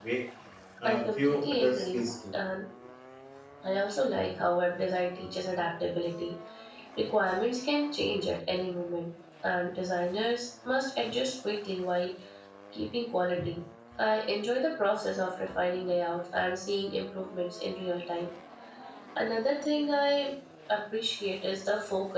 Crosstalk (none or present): present